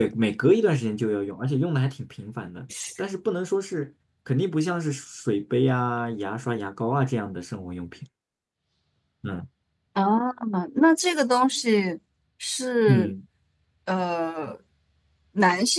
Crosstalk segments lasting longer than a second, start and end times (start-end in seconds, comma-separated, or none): none